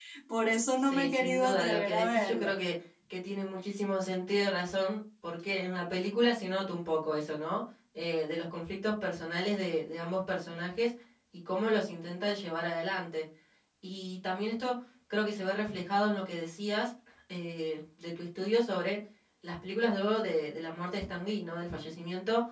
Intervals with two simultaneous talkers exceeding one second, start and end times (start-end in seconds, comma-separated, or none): 0.8-2.5